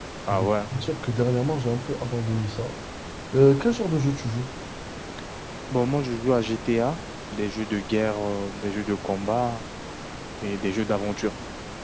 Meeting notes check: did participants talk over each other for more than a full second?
No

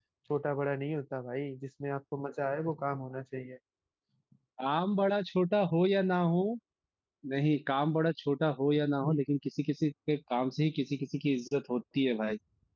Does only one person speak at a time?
Yes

